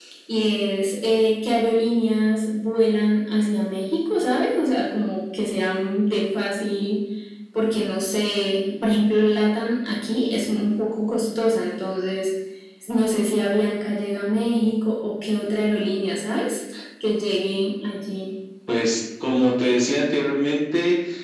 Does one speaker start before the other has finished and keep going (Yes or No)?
No